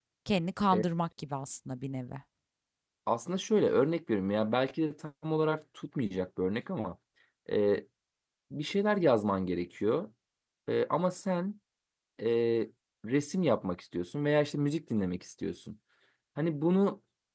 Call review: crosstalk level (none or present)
none